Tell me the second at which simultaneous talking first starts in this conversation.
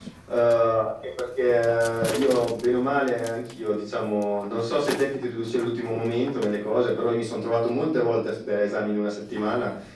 none

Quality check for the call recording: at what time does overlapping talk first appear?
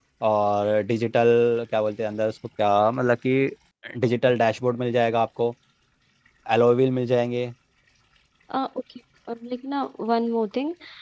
none

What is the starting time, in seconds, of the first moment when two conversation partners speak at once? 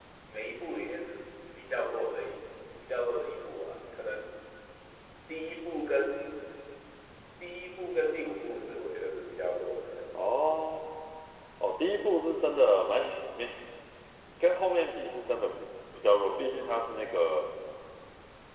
none

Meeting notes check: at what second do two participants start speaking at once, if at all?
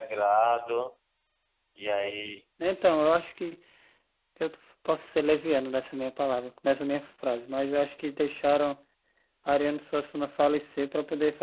none

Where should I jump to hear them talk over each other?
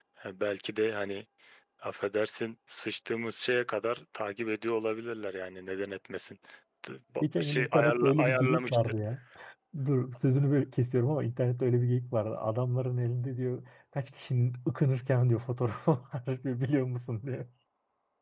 7.2 s

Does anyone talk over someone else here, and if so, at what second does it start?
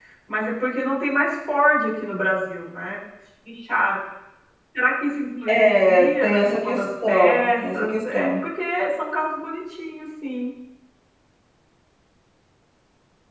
5.5 s

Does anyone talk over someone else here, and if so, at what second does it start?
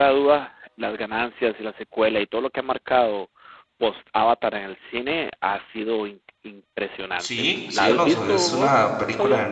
7.2 s

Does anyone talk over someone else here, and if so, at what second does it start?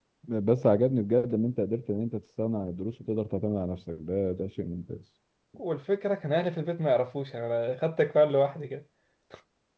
none

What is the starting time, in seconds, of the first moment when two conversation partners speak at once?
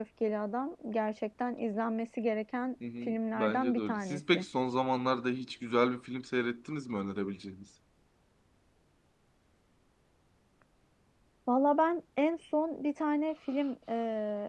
2.8 s

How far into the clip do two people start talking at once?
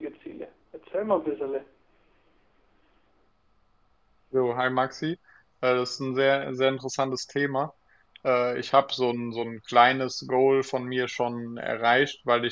none

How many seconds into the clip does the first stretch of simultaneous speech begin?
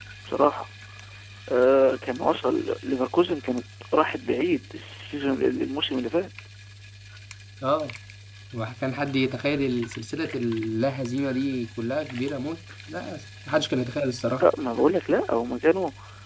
none

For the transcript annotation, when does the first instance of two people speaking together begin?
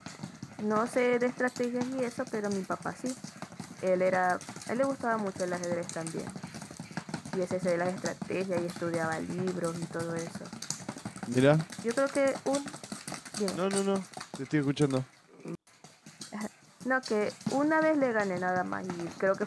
none

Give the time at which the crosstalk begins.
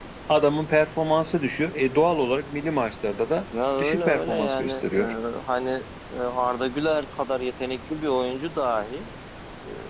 3.8 s

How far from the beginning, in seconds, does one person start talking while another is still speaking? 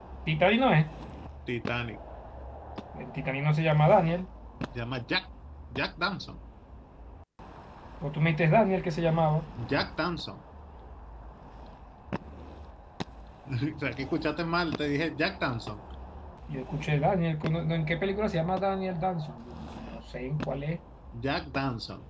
none

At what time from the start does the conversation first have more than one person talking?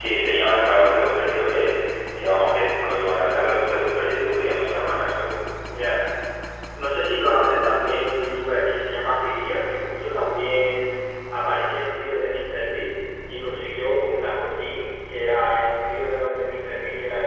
none

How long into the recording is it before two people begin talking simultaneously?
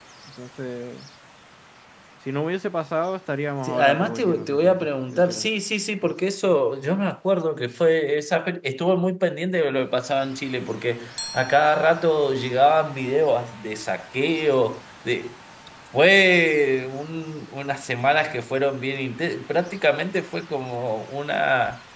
3.6 s

